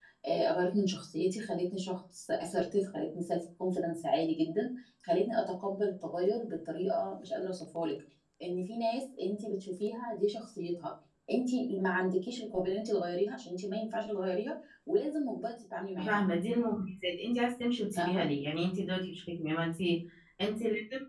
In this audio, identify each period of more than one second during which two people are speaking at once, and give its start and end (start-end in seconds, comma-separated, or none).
none